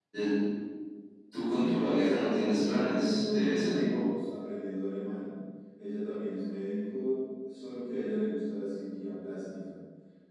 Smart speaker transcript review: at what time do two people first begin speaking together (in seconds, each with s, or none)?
1.5 s